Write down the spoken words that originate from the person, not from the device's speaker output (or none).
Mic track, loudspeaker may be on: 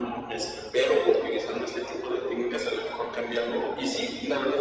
none